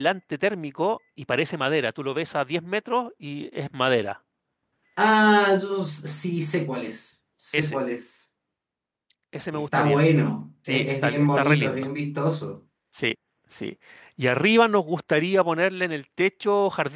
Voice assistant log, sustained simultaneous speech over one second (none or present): present